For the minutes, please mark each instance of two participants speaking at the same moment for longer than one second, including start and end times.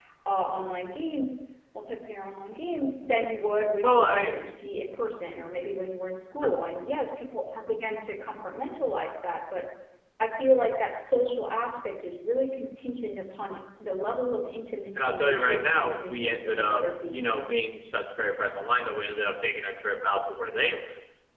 15.0-17.4

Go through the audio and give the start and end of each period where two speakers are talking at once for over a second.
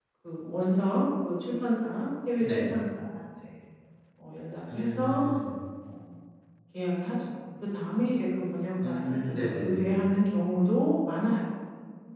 8.8-10.0

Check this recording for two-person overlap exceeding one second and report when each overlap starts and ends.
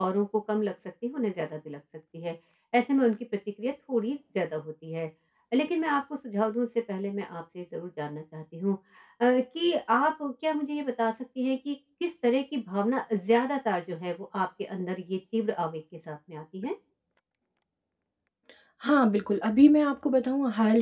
none

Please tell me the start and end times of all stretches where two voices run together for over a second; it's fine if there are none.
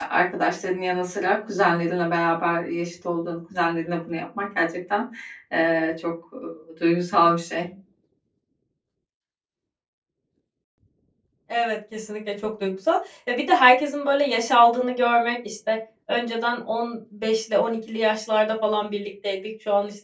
none

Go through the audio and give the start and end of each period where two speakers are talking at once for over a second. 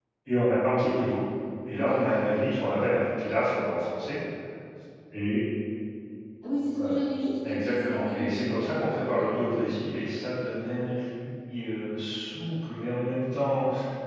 7.4-9.5

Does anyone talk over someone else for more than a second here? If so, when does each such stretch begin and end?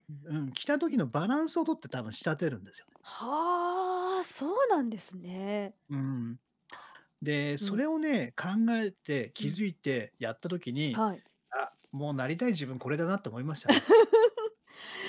none

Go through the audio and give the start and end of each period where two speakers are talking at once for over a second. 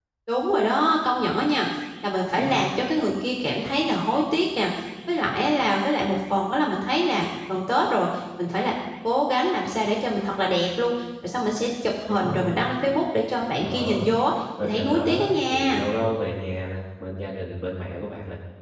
14.6-15.8

